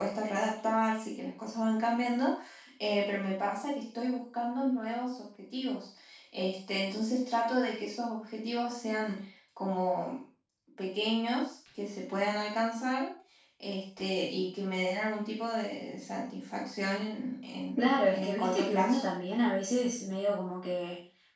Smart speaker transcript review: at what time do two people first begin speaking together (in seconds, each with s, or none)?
17.8 s